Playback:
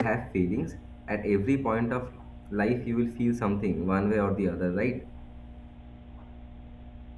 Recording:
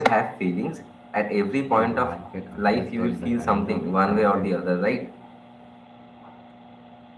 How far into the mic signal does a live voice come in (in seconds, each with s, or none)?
1.7 s